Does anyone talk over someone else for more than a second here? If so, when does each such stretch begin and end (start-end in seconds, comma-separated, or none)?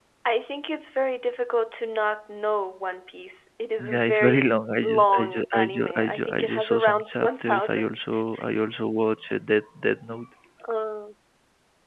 3.8-8.0